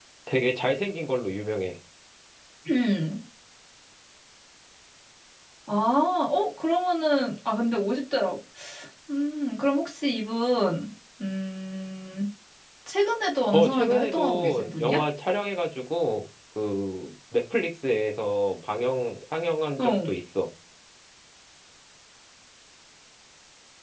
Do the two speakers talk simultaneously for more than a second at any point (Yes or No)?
Yes